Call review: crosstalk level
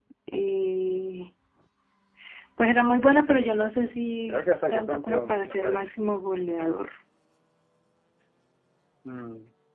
present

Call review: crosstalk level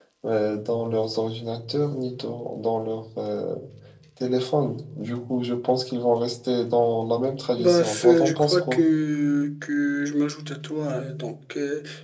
present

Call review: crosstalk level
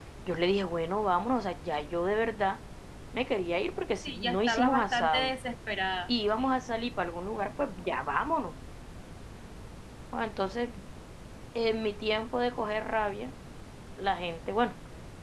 present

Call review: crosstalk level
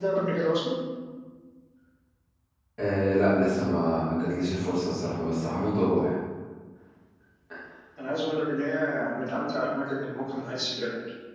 none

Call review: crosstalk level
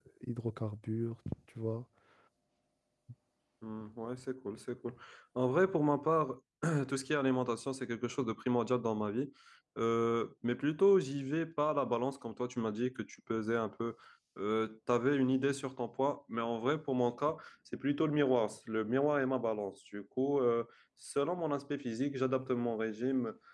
none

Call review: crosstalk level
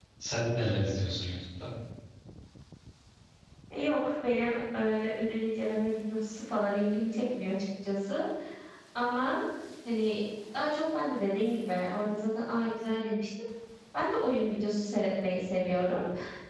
none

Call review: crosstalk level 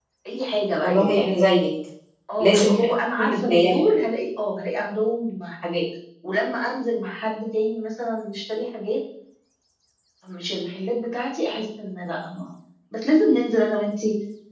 present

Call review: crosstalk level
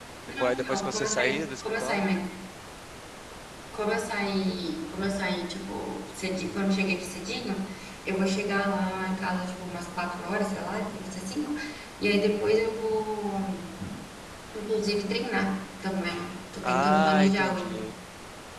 present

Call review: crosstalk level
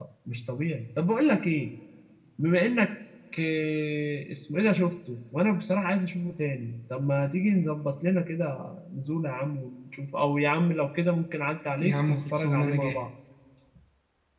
present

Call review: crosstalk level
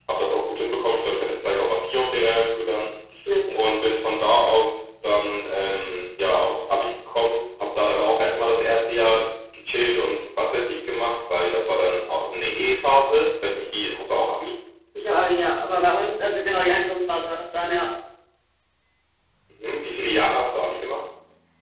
none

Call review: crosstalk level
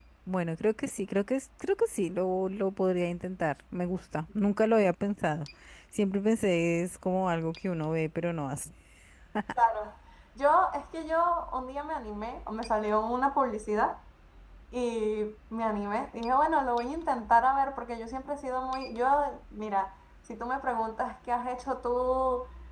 none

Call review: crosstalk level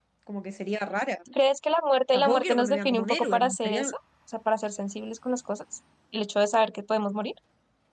present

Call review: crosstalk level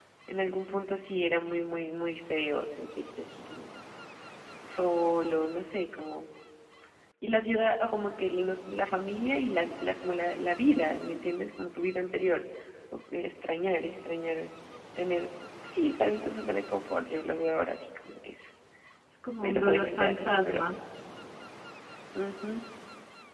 present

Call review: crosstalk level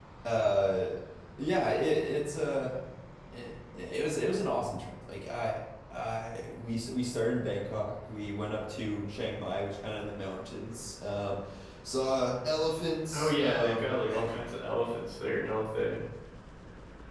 present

